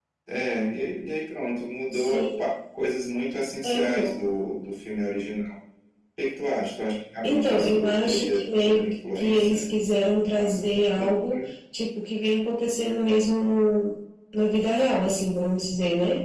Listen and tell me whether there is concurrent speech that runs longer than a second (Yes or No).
Yes